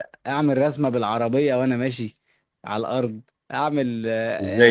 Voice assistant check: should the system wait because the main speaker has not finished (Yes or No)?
No